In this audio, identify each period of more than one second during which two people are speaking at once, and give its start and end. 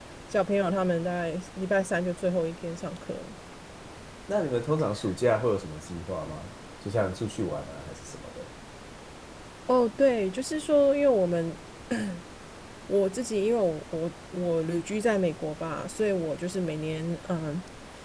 none

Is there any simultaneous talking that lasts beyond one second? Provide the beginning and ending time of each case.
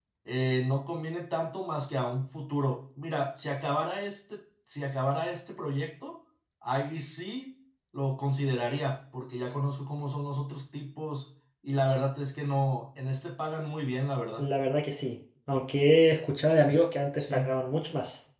none

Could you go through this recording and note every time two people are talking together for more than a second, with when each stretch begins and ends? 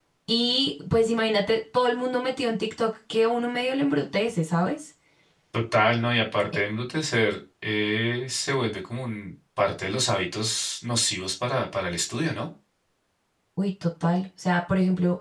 none

